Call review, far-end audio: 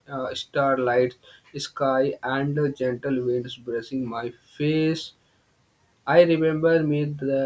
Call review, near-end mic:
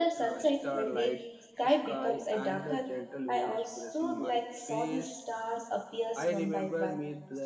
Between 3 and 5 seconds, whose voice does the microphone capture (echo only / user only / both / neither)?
both